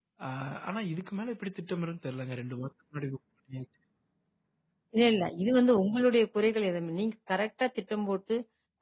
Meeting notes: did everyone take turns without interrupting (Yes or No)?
Yes